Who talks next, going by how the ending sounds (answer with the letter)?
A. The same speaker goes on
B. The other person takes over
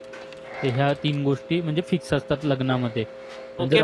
B